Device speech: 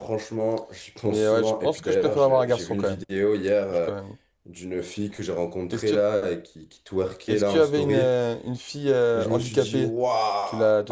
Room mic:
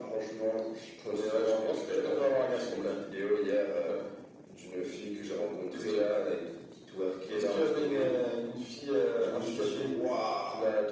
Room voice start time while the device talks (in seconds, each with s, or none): none